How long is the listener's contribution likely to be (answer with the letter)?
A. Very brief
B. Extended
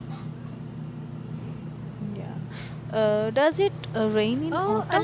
B